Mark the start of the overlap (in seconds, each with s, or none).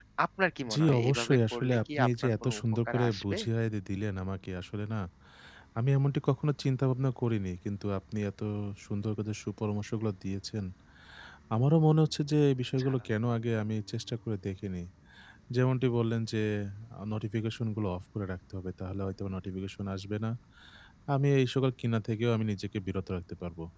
0.7 s